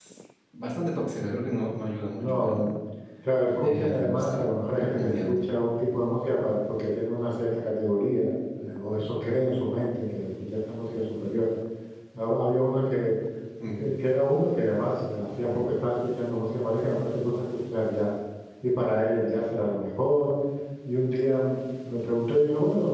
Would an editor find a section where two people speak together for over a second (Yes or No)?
Yes